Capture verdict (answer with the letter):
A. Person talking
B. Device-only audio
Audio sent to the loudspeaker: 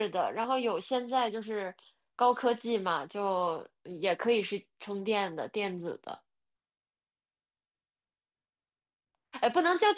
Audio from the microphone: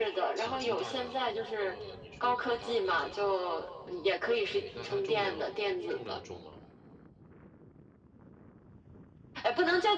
A